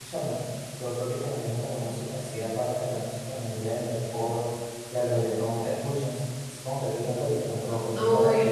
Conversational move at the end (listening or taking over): taking over